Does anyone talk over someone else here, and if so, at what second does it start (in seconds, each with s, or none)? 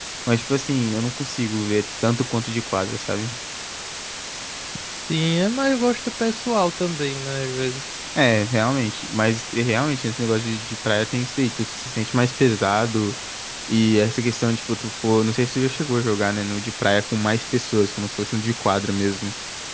none